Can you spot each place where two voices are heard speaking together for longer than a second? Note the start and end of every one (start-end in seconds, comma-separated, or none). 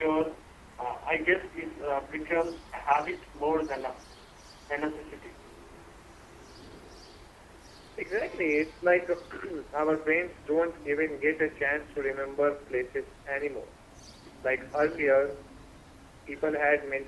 none